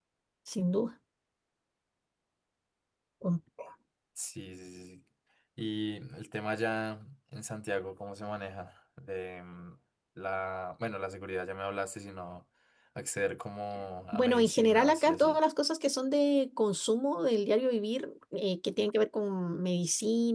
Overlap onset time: 14.1 s

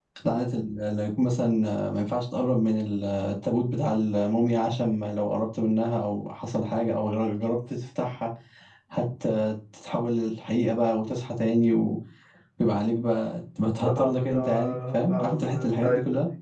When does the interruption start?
13.9 s

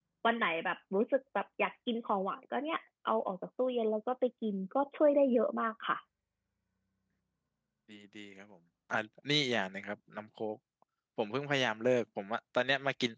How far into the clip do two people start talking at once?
none

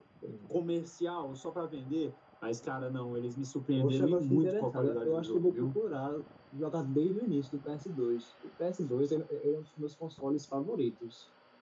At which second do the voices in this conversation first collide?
3.8 s

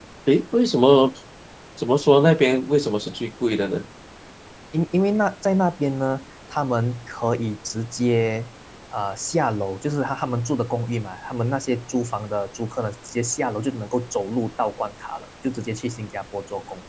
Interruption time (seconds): none

